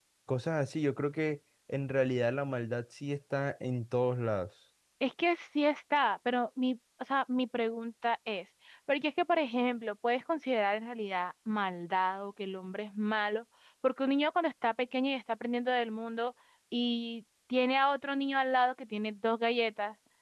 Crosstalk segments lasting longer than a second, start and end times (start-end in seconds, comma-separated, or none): none